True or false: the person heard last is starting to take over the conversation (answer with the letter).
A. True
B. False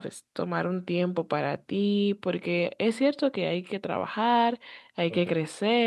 B